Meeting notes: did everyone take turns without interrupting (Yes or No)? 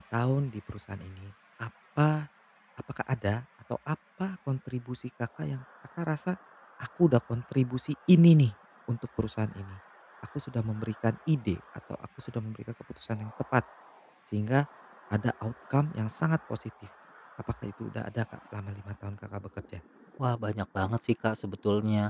Yes